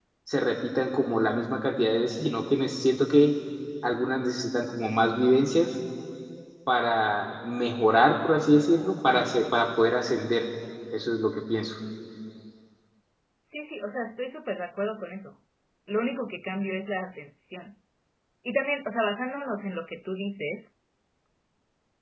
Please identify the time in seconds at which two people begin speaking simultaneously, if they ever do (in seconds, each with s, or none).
none